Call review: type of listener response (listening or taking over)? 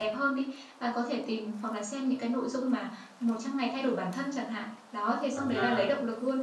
listening